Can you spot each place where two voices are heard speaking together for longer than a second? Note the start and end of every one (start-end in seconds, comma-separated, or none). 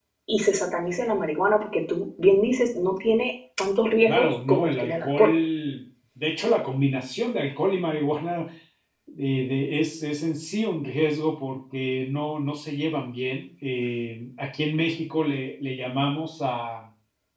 4.0-5.3